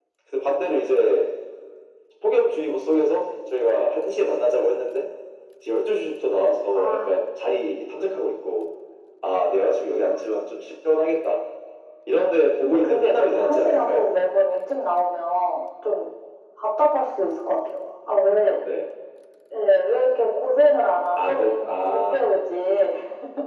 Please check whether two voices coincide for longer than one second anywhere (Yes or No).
Yes